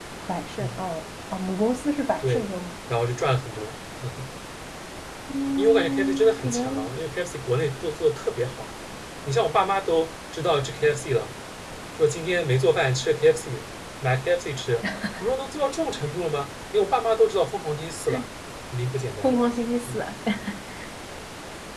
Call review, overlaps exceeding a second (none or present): present